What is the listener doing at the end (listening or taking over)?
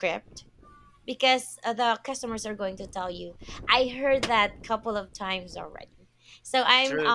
listening